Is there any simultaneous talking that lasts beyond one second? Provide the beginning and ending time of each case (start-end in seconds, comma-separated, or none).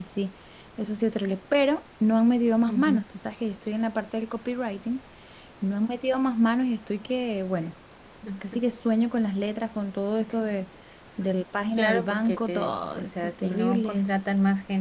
11.8-14.0